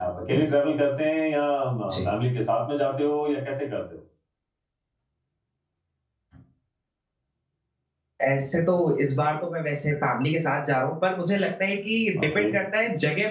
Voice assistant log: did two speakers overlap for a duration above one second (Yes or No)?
No